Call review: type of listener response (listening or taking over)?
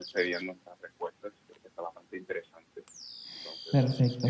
taking over